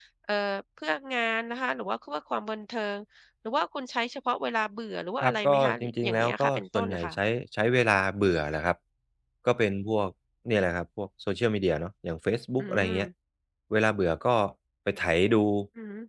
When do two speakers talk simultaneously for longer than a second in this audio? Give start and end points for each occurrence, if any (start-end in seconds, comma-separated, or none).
5.2-7.2